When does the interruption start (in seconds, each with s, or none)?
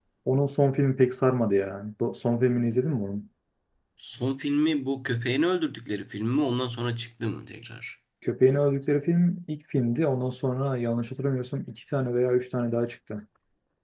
none